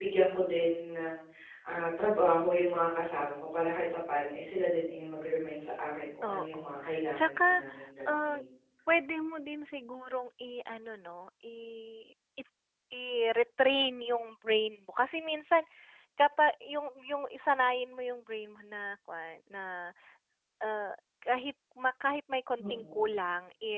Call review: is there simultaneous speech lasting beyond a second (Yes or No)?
Yes